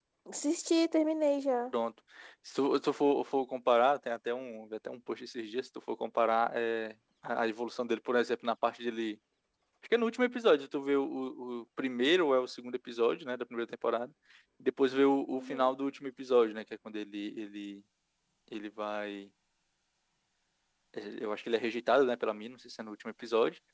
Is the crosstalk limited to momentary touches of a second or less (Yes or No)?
Yes